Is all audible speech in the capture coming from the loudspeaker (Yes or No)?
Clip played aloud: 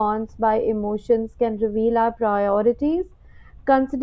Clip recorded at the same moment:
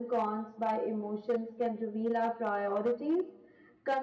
Yes